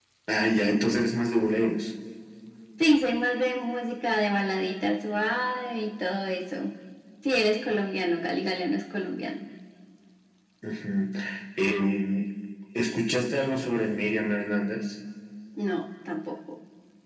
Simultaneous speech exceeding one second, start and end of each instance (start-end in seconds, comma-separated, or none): none